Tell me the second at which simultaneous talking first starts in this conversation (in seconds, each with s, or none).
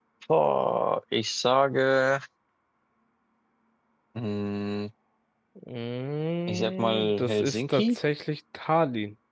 6.5 s